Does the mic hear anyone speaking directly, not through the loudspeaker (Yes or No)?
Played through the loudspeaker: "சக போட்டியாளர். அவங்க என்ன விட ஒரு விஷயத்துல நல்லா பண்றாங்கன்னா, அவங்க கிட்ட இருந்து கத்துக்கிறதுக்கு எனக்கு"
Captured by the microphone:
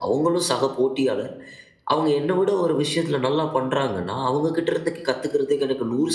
No